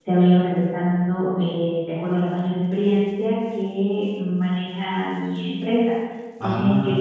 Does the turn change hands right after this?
No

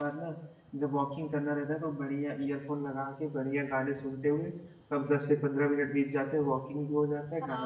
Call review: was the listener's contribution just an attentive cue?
No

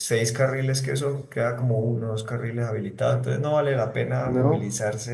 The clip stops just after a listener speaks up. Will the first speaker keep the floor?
Yes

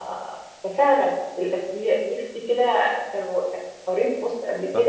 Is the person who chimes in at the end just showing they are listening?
No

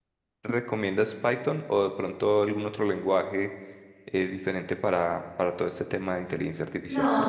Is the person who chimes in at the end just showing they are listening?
No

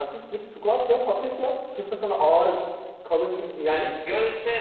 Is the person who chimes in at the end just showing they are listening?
No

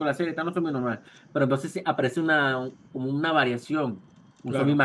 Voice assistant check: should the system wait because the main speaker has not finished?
Yes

